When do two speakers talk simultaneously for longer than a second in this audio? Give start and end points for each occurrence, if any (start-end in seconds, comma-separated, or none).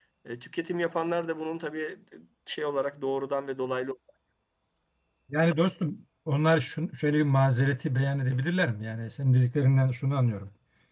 none